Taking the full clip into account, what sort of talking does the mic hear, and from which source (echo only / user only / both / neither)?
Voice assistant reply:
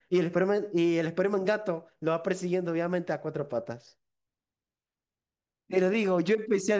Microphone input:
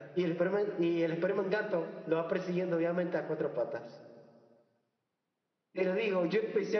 echo only